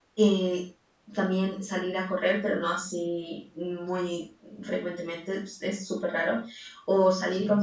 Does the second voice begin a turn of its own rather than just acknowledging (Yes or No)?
No